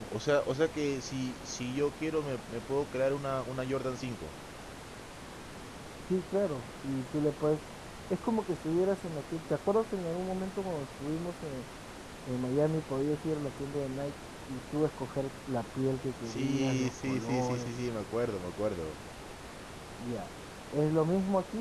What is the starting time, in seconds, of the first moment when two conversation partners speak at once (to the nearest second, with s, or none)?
16 s